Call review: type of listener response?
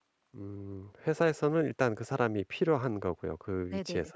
taking over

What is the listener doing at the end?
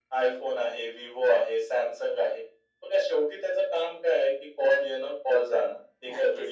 listening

